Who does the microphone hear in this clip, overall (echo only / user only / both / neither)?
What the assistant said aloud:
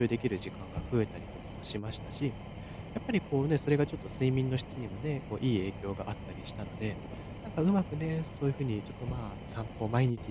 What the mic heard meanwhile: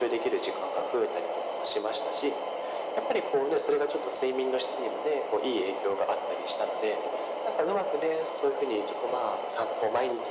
echo only